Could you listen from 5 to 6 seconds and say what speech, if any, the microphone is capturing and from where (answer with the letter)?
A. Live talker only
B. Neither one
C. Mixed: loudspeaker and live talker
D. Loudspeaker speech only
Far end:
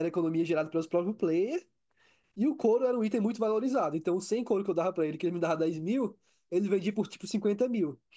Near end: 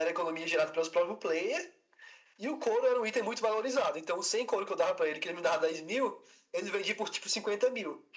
D